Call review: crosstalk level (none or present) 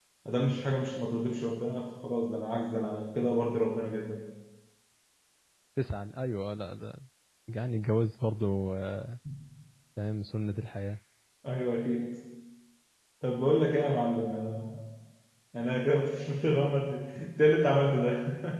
none